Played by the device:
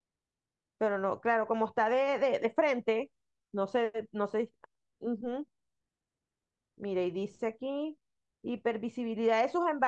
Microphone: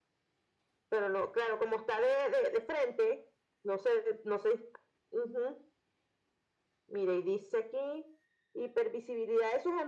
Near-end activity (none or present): none